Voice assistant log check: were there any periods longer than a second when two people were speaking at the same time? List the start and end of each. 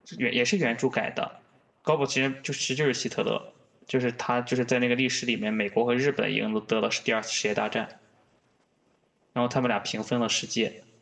none

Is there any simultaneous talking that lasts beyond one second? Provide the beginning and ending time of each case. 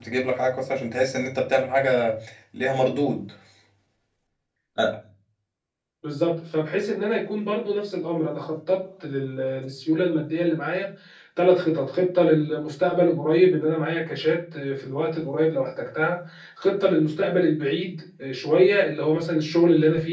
none

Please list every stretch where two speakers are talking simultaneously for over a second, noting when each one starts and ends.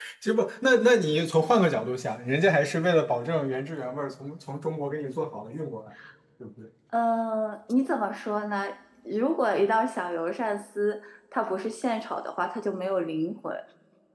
none

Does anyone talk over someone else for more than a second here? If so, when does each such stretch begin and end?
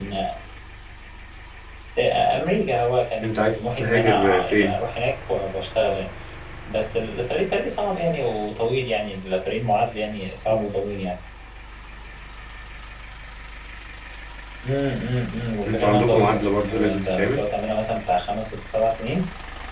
3.2-4.7, 15.7-17.4

